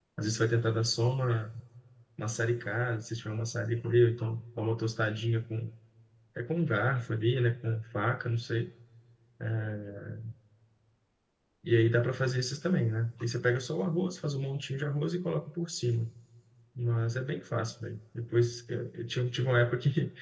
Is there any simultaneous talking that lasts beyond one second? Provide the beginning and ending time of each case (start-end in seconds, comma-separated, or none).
none